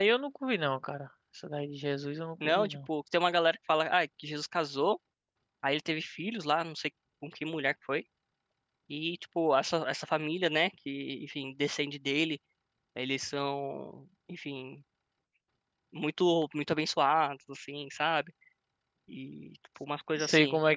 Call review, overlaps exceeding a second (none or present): none